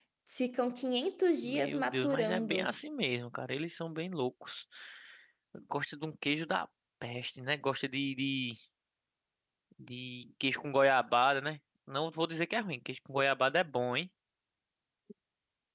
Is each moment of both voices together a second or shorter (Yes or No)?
No